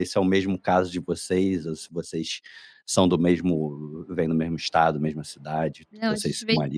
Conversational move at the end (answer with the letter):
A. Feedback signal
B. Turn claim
B